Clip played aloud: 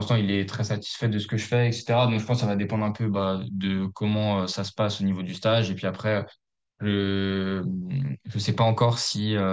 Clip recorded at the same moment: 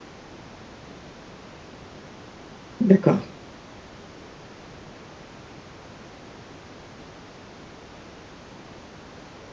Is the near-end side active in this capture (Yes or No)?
Yes